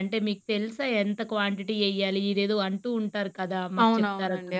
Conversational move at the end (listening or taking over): taking over